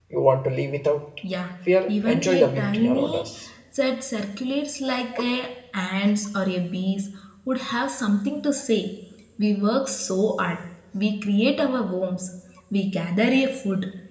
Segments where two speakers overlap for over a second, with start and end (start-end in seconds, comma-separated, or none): 1.9-3.3